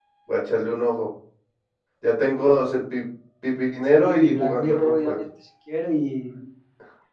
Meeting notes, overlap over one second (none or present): present